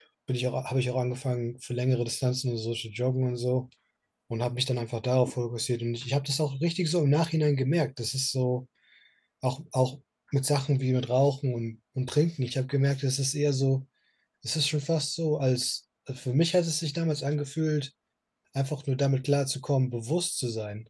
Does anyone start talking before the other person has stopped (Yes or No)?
No